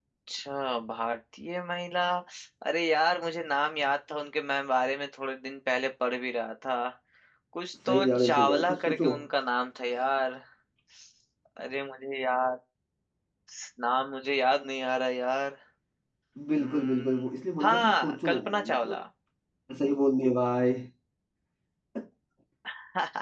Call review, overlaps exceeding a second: present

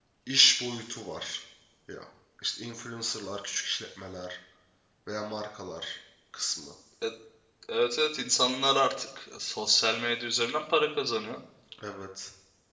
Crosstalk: none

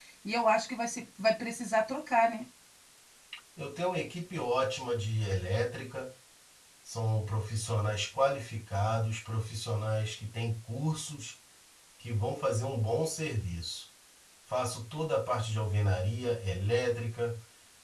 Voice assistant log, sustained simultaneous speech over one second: none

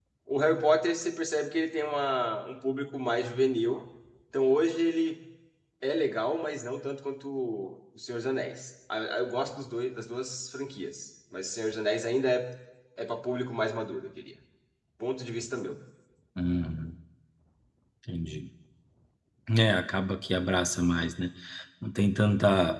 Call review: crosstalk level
none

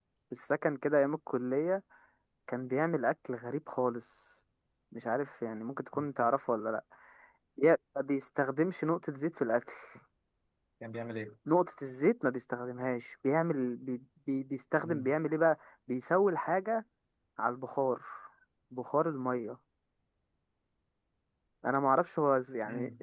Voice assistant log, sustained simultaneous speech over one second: none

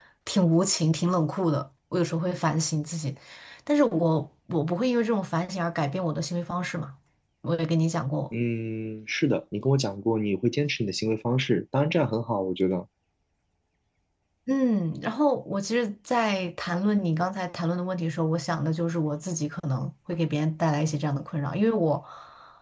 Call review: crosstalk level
none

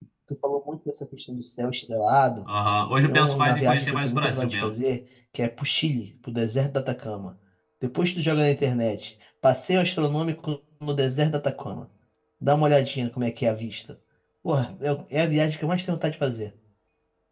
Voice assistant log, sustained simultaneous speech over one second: present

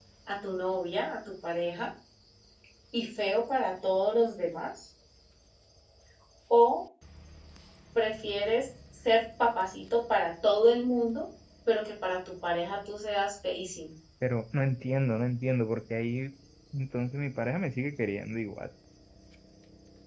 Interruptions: none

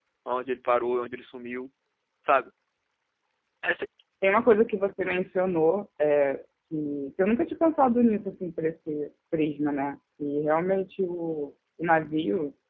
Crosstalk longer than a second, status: none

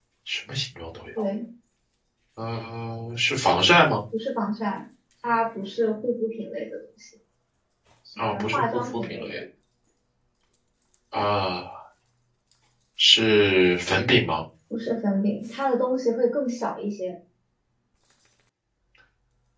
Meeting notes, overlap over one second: present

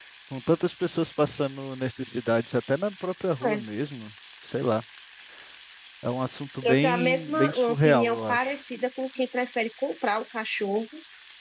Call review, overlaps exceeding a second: present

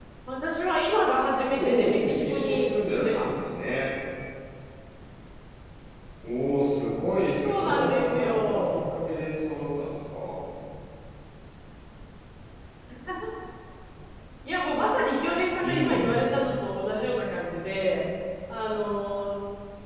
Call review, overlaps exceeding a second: present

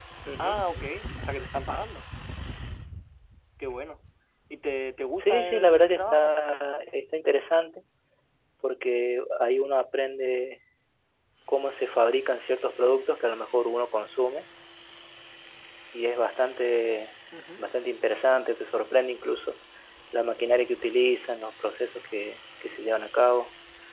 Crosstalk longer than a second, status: present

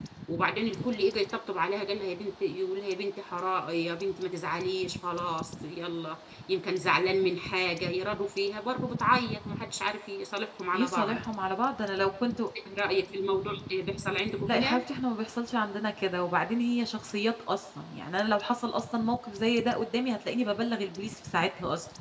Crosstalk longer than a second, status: none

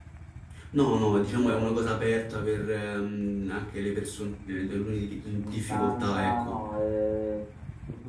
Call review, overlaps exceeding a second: present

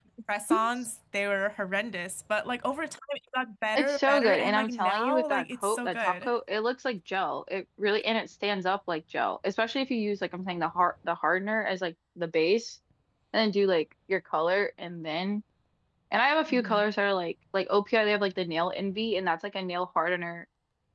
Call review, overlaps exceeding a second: present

